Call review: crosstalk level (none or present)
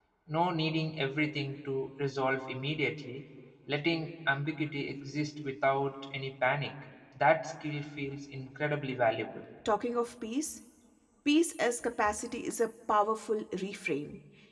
none